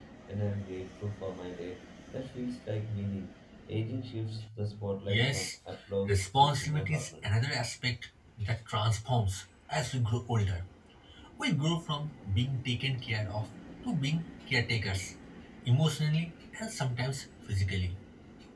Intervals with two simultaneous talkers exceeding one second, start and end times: 6.1-7.3

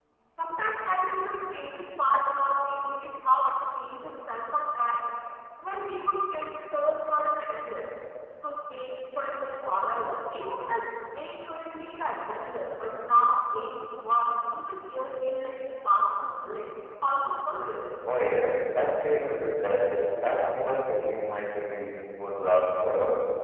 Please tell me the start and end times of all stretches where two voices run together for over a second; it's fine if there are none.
none

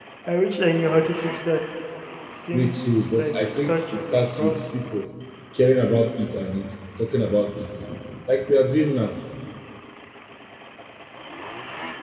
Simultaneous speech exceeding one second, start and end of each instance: 2.5-4.6

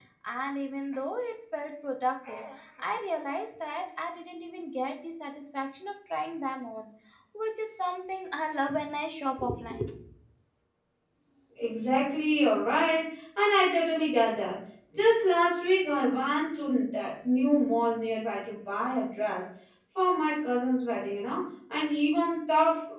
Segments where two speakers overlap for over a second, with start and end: none

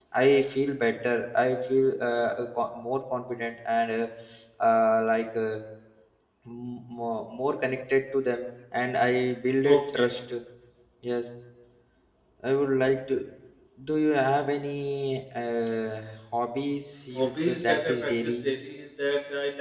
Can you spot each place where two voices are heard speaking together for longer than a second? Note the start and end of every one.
17.1-18.4

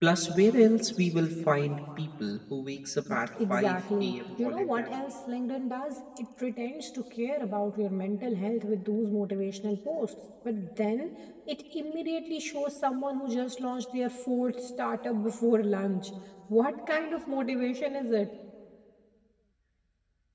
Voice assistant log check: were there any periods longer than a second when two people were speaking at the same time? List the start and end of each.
3.5-5.0

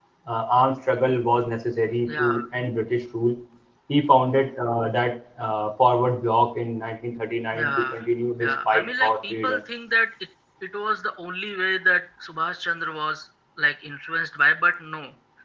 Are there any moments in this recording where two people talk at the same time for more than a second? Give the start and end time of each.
8.4-9.6

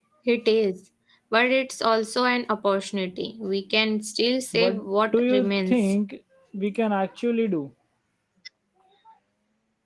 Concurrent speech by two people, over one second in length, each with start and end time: 4.5-5.9

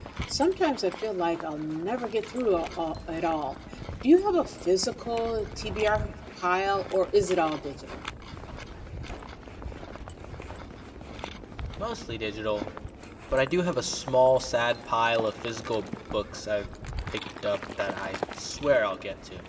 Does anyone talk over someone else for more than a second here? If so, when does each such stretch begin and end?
none

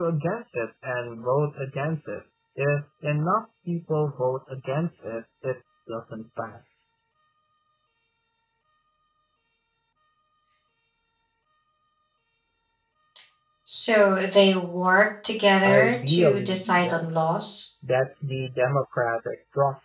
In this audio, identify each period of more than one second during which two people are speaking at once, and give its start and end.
15.6-17.3

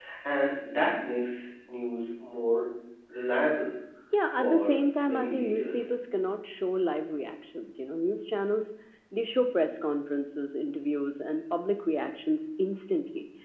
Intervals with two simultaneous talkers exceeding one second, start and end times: 4.4-5.9

